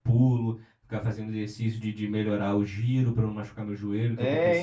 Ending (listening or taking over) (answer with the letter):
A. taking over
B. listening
A